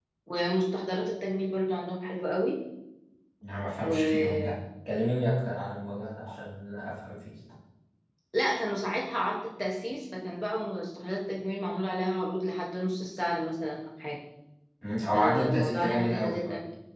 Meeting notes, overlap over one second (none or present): present